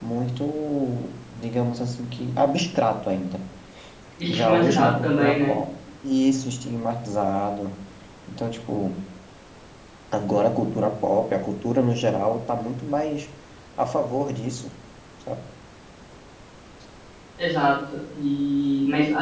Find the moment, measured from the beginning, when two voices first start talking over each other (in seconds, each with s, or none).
4.3 s